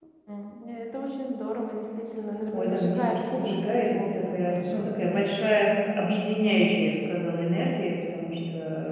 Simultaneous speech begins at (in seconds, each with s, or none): 2.5 s